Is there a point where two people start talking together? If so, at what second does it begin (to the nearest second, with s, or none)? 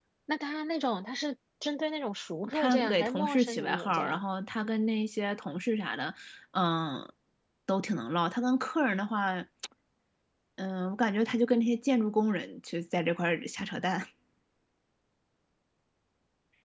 2 s